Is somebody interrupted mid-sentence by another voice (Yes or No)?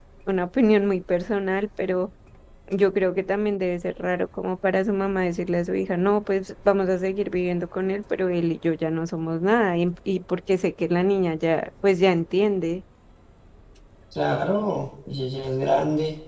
No